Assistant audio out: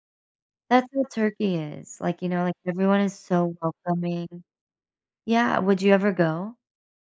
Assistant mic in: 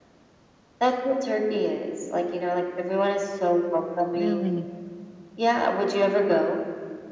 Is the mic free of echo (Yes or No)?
No